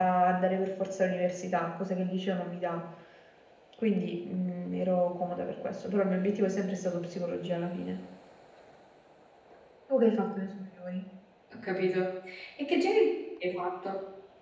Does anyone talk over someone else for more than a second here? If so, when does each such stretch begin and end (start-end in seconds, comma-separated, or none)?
none